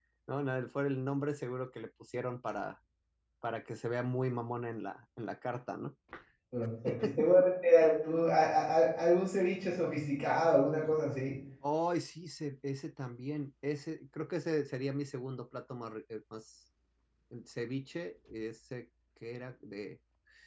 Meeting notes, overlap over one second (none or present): none